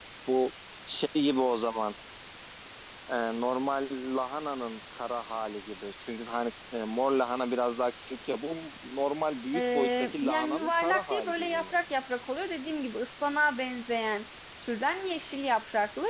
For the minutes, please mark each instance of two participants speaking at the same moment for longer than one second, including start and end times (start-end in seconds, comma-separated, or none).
9.6-11.8